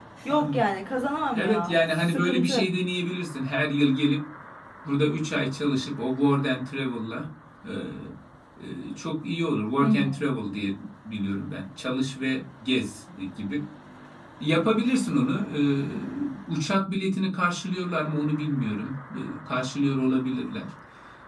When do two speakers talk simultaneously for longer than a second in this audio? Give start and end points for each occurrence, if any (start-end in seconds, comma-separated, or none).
1.3-2.6